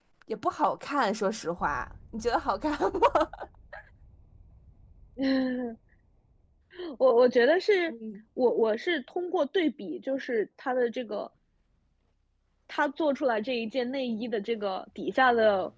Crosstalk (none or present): none